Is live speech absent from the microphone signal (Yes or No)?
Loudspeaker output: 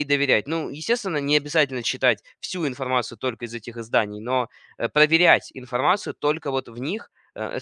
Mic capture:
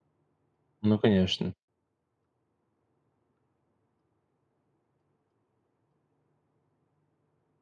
No